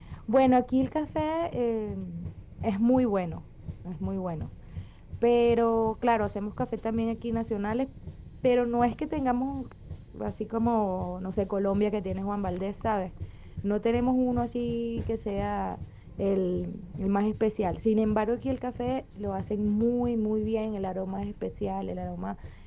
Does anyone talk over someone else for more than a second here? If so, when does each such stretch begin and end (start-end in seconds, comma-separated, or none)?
none